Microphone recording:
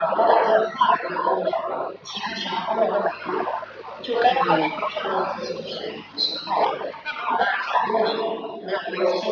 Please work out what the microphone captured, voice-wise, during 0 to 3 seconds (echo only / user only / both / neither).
echo only